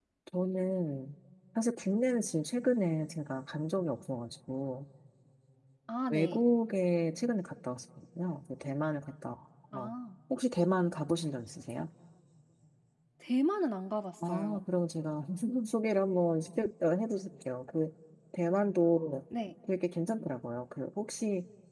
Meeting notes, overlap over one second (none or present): none